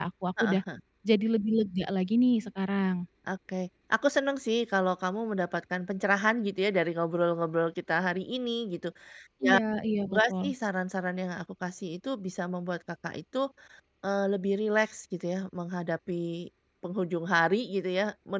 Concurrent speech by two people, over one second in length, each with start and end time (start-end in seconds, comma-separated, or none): none